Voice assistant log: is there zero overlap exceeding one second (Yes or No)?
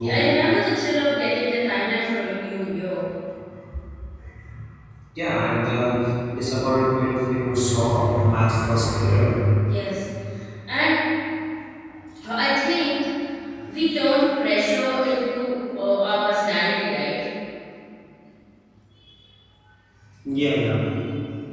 Yes